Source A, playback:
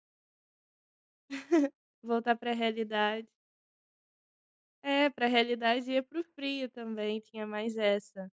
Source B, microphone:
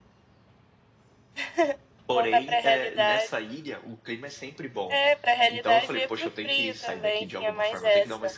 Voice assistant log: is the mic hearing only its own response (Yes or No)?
No